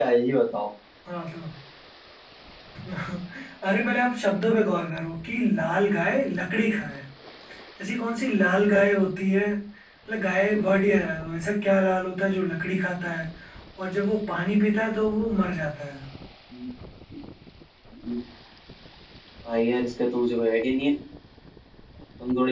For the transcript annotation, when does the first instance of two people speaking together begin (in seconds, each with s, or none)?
none